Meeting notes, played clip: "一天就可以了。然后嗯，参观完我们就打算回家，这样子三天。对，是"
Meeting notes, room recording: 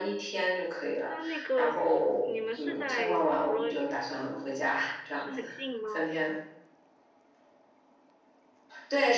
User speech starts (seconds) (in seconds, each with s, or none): 1.1 s